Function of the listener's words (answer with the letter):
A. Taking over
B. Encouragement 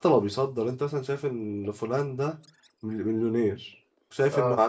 B